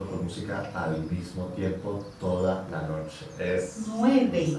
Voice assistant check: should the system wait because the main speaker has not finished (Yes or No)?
No